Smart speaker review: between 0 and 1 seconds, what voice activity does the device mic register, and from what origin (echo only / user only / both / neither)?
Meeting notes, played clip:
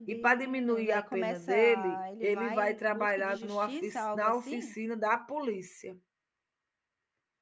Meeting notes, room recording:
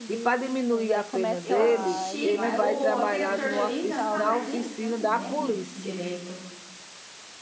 echo only